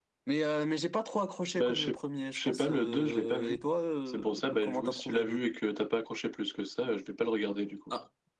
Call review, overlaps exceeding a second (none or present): present